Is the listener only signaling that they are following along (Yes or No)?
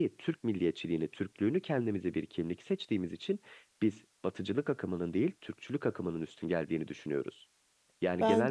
No